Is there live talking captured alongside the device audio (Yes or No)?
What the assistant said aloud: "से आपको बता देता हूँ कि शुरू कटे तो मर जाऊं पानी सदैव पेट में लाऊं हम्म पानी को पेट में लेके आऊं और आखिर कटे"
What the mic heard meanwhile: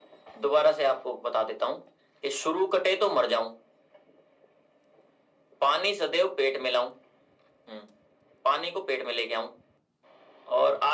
No